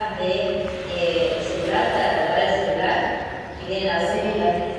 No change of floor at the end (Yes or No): Yes